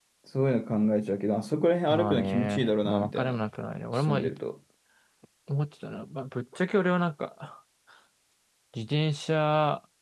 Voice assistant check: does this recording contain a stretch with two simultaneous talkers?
Yes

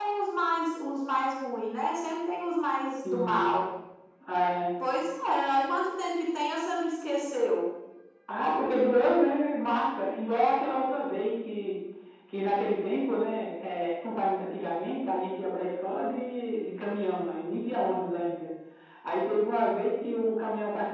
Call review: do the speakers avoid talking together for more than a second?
Yes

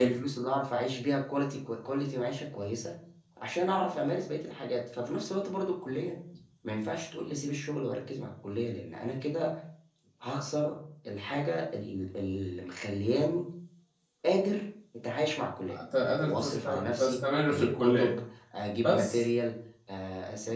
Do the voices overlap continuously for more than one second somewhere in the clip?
Yes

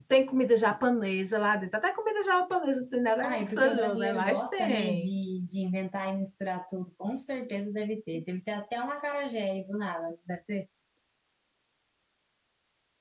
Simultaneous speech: Yes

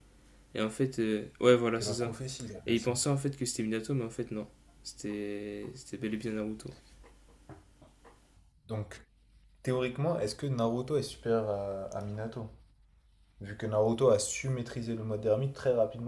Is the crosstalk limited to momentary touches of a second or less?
Yes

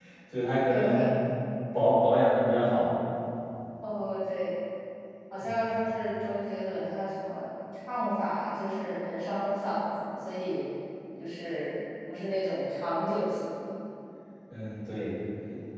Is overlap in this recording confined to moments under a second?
Yes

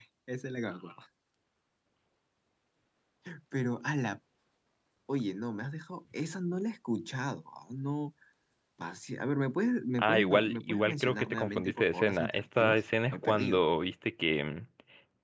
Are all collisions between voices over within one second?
No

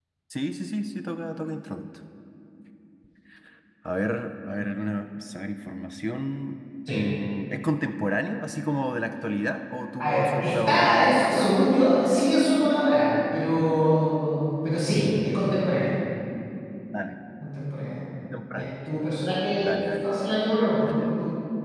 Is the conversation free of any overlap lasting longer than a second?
No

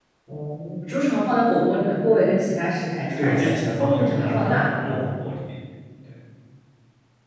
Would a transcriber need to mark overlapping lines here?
Yes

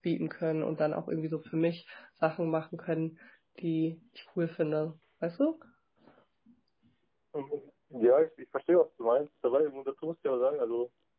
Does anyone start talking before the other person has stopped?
No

